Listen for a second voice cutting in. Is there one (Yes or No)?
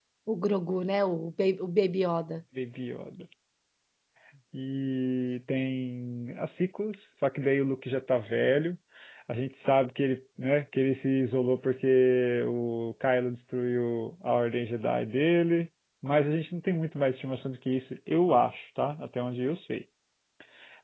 No